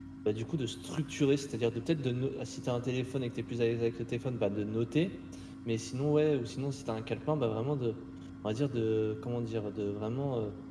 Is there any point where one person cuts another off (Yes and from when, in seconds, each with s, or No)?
No